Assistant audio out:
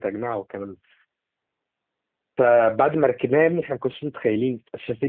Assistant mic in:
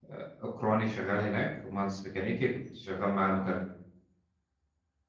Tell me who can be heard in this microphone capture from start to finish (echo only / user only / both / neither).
user only